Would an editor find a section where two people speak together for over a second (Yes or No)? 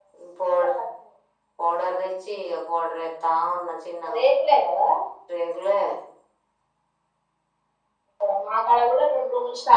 No